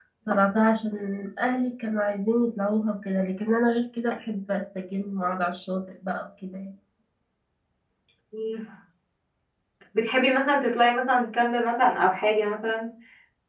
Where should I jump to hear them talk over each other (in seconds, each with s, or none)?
none